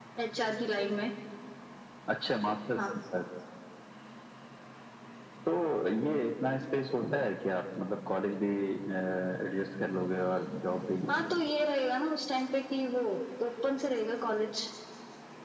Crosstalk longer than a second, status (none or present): none